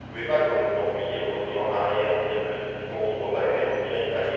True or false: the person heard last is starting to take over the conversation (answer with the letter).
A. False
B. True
A